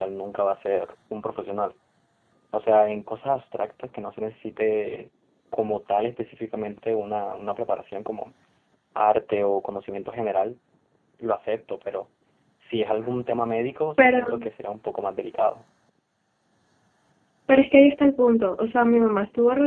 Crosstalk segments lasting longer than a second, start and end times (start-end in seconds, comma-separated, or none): none